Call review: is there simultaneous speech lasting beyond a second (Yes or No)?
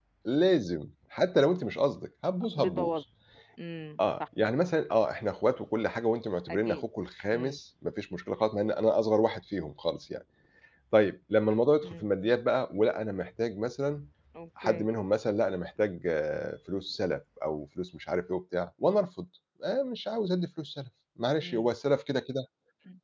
No